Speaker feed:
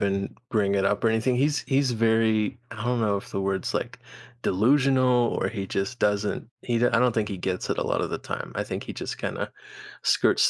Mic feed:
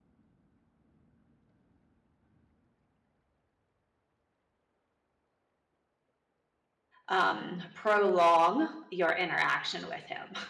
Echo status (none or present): none